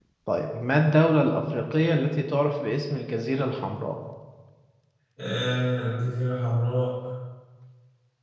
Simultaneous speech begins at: none

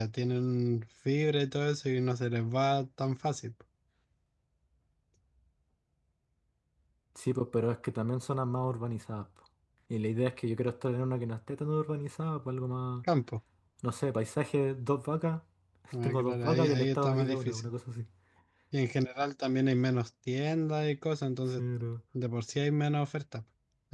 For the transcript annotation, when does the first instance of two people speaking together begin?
16 s

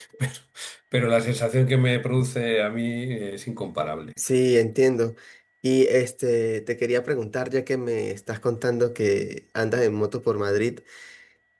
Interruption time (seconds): none

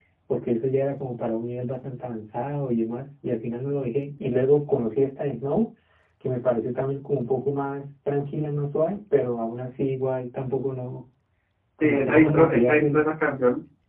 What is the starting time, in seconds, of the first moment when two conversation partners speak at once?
12 s

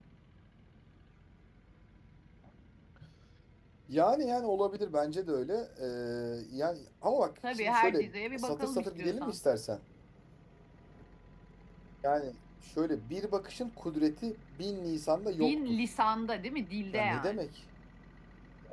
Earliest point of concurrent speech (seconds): 8 s

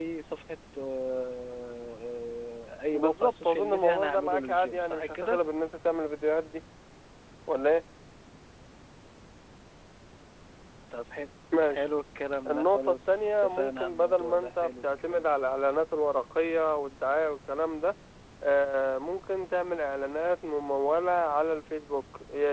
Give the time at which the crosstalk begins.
3 s

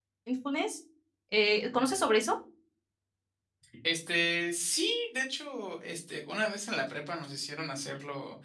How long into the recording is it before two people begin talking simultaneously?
none

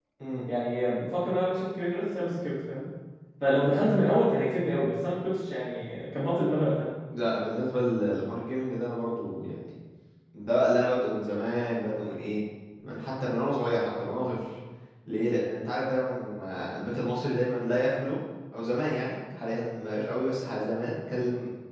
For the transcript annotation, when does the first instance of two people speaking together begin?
none

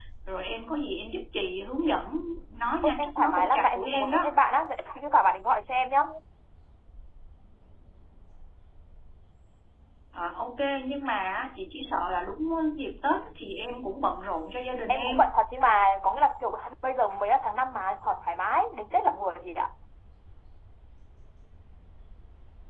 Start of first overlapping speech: 3 s

